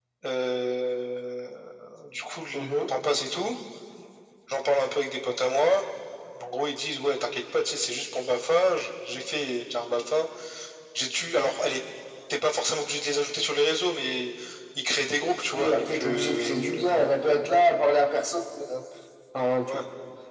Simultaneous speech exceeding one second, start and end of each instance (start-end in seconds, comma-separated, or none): 15.6-17.1